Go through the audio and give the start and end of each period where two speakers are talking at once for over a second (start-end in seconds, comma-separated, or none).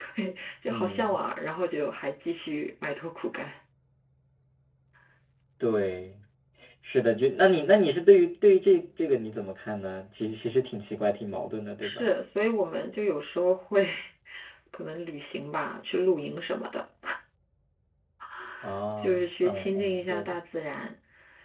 19.0-20.4